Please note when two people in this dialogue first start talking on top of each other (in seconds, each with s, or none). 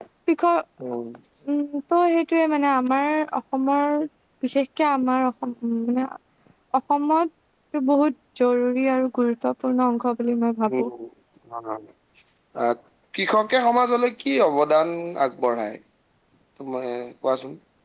none